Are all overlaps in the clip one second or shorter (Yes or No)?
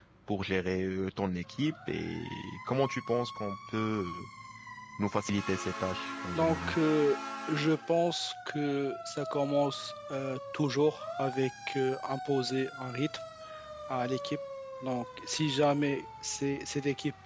Yes